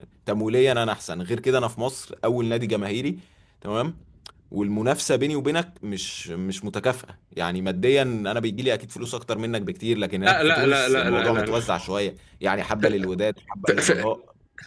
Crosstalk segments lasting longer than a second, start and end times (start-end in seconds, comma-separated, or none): 10.2-11.5